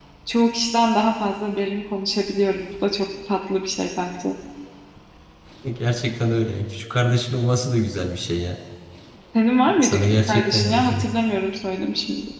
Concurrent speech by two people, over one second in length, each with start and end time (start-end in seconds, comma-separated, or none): 9.8-11.0